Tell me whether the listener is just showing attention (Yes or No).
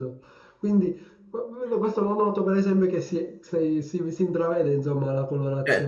No